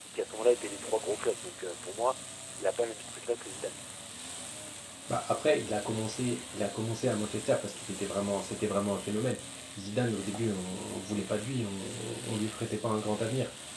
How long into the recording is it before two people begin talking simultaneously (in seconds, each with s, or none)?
none